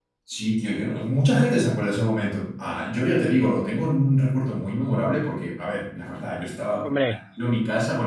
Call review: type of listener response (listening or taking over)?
listening